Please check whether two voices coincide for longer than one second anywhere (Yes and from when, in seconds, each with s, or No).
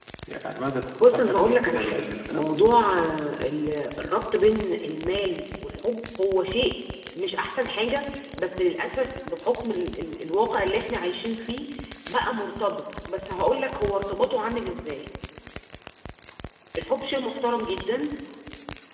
Yes, from 1.0 s